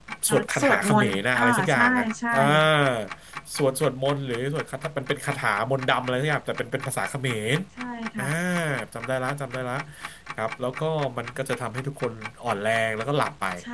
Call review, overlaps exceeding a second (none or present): present